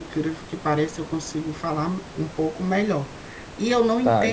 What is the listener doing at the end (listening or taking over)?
listening